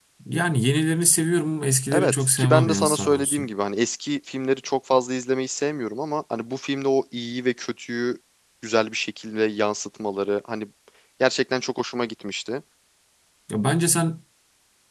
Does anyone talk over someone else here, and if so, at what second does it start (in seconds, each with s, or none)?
1.9 s